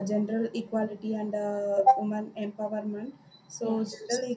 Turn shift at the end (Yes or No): No